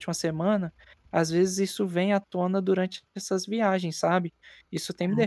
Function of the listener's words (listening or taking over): taking over